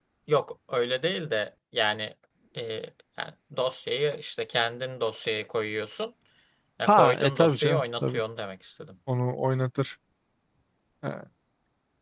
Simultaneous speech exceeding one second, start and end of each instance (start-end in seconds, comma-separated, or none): 6.9-8.2